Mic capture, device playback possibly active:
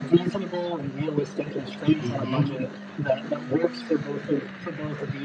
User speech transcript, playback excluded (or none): Mhm.